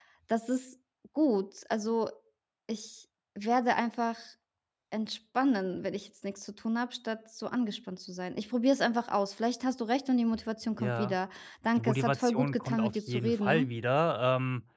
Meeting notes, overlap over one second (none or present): present